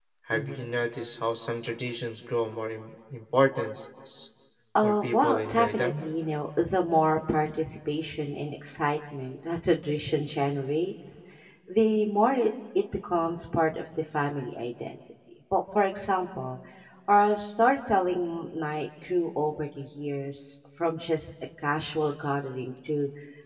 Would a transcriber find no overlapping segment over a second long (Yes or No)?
No